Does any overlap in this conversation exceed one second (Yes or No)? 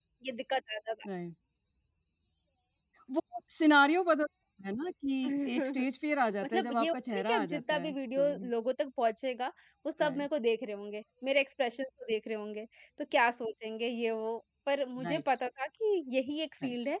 Yes